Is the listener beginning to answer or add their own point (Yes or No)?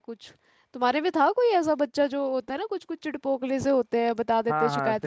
Yes